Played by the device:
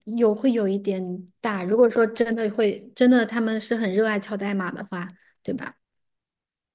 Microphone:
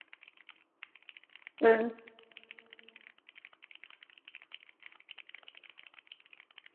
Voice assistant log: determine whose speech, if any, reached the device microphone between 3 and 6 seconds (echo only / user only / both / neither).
neither